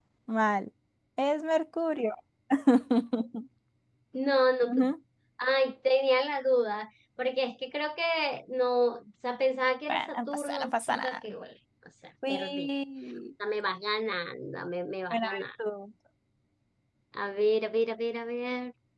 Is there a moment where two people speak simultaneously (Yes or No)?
Yes